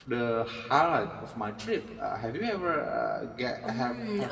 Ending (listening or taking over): taking over